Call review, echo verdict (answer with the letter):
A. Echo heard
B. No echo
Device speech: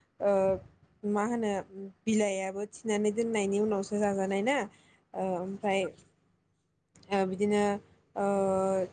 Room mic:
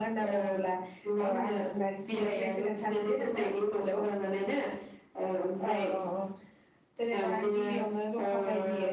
A